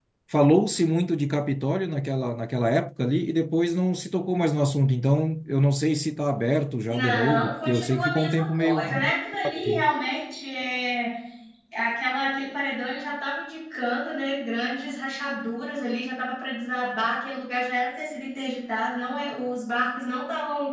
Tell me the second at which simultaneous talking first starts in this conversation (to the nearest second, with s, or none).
7 s